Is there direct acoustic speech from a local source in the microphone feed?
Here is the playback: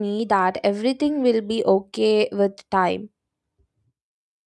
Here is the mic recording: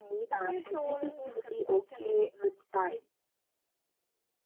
Yes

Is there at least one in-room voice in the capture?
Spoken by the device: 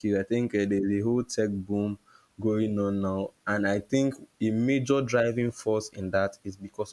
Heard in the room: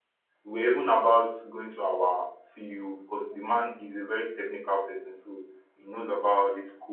Yes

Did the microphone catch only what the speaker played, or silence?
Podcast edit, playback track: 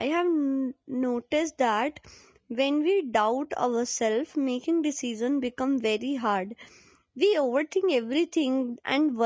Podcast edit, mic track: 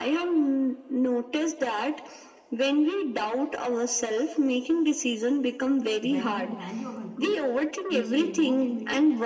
No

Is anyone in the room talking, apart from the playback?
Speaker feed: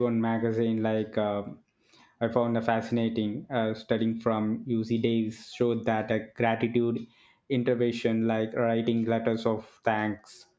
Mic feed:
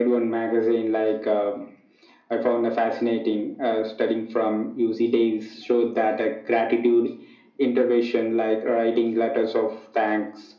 No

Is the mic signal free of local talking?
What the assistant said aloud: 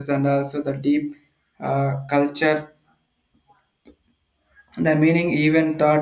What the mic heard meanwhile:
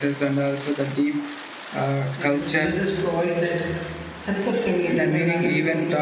No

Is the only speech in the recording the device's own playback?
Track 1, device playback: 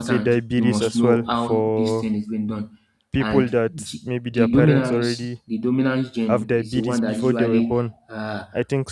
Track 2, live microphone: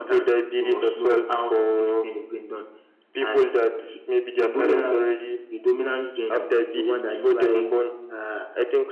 Yes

